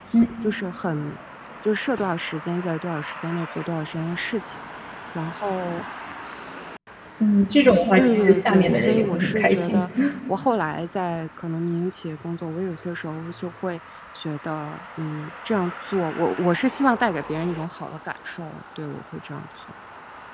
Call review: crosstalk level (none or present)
present